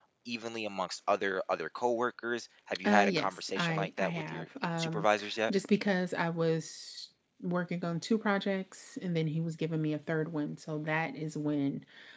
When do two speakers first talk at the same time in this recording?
2.8 s

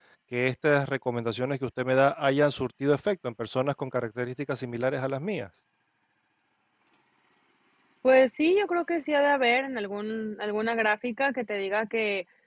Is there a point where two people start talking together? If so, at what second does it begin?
none

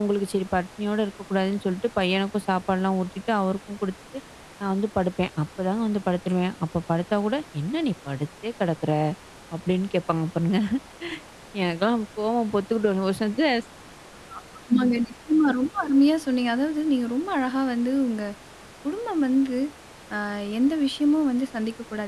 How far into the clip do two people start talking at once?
none

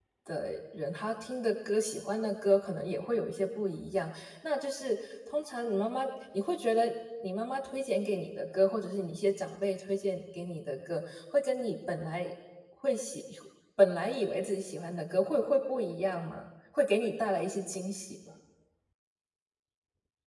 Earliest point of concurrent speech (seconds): none

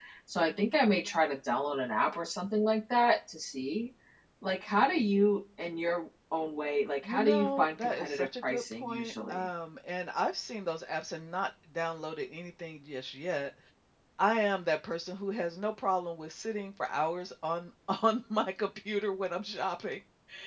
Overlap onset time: 7.0 s

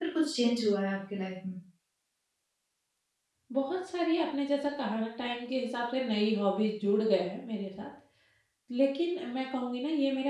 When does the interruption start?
none

